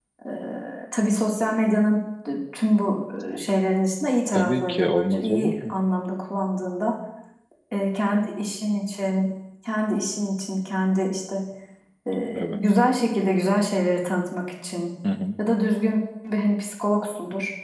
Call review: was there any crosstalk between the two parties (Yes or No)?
Yes